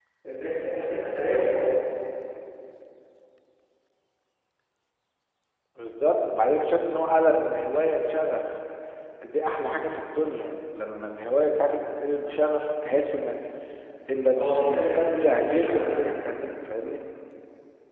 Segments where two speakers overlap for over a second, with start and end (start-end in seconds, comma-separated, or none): 14.4-16.1